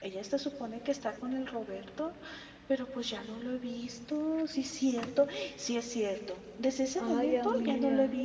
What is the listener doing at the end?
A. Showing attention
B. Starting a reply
A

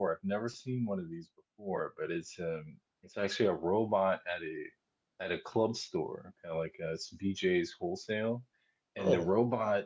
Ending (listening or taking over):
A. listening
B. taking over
A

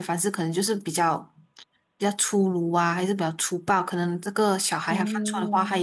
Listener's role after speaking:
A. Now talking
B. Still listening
B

